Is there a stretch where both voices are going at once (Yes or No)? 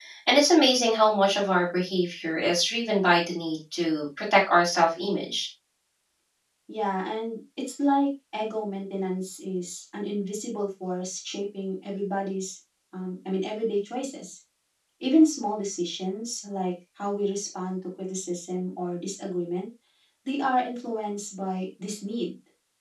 No